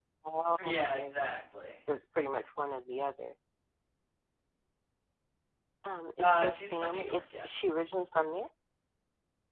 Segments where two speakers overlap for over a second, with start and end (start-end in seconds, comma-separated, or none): 6.2-7.5